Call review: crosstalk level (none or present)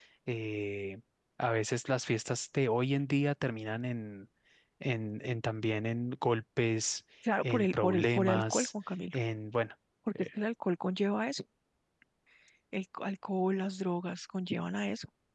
present